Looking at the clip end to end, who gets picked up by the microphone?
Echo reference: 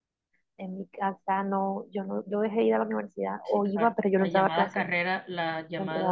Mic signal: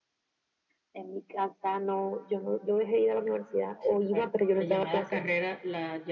echo only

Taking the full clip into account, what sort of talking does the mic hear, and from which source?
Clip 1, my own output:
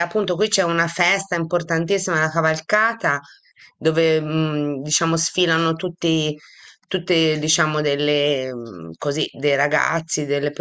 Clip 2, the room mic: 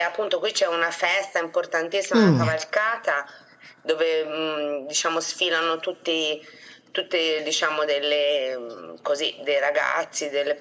both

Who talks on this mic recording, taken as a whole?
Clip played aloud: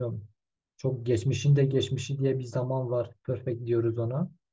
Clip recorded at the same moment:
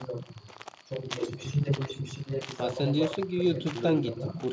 both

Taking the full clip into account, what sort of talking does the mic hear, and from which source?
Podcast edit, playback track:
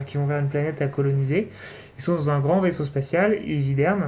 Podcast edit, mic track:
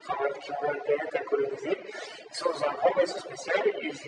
echo only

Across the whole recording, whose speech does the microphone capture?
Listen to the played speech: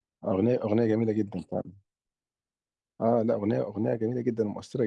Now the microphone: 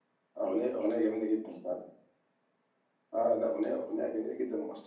echo only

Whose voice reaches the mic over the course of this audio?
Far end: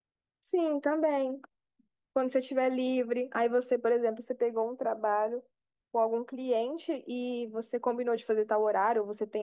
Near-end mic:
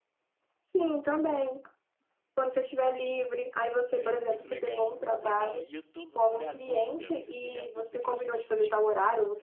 both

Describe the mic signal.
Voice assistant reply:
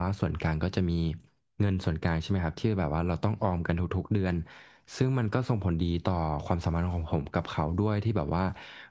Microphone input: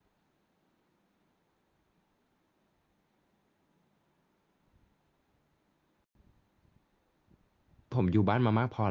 user only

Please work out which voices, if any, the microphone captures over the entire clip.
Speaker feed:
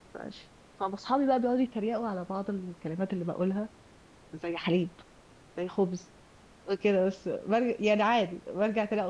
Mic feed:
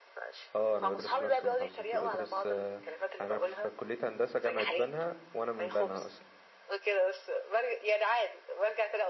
both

